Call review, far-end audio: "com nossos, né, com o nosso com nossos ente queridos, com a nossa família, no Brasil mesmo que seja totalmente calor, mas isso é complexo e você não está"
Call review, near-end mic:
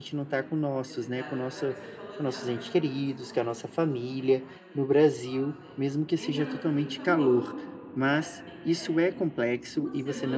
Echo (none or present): present